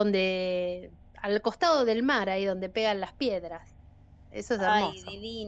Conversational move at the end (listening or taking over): taking over